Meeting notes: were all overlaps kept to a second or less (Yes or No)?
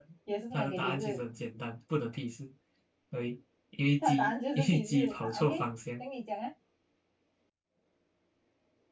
No